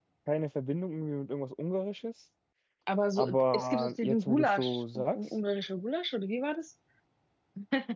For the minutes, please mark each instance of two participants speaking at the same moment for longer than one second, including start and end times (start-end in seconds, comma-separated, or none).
3.2-5.2